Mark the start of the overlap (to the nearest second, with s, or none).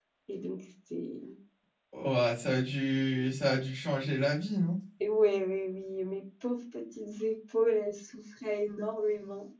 none